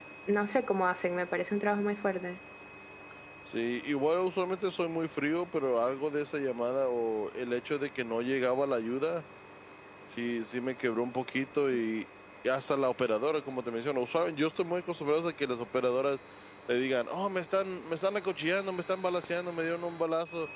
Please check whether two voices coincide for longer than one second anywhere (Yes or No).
No